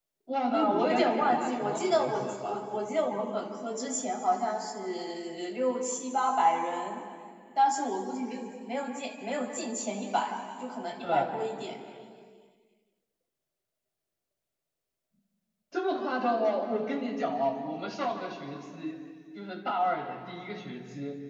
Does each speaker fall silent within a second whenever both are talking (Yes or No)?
No